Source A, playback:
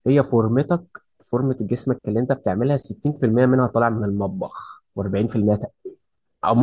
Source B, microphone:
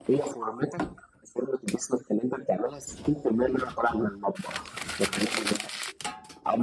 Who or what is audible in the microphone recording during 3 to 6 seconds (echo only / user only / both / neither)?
echo only